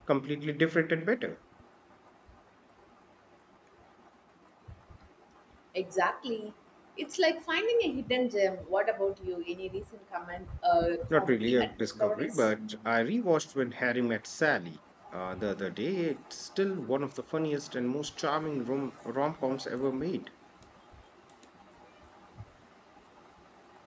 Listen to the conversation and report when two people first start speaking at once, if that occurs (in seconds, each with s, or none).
11.1 s